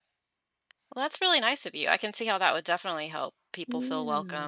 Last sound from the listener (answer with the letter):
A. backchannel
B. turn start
B